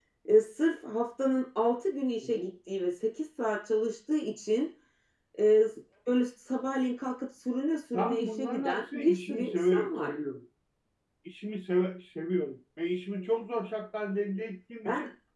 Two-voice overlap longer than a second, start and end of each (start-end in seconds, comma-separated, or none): 8.0-10.1